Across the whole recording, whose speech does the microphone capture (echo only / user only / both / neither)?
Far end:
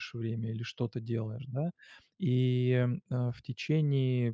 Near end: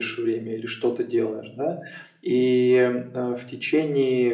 echo only